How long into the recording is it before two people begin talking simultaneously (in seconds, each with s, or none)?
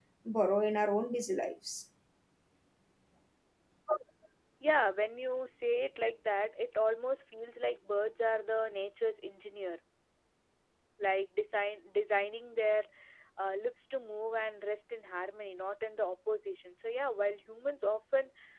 none